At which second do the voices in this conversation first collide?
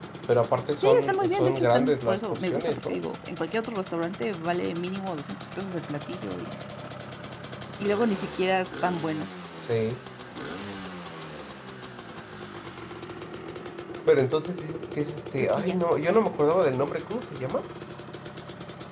0.8 s

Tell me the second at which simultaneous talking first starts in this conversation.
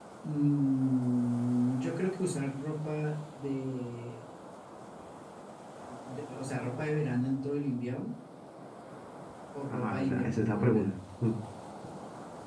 9.7 s

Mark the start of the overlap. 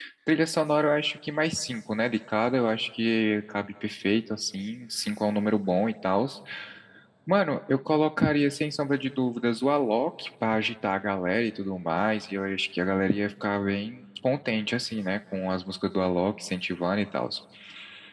none

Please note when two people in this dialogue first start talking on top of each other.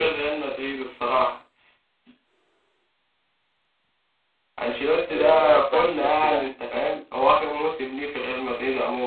5.1 s

